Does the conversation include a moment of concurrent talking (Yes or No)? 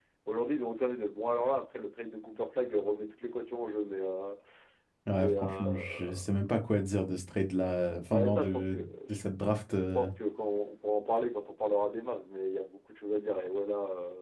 Yes